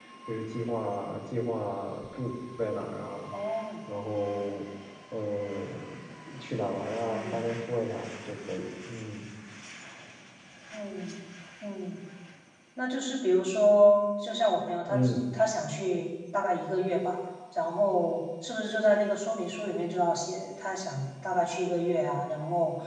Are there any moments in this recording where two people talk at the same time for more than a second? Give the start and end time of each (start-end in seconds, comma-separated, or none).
none